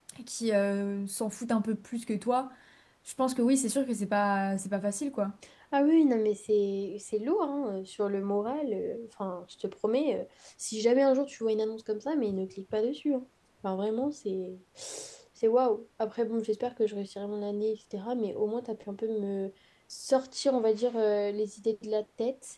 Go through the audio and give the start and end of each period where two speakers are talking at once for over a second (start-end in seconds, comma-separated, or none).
none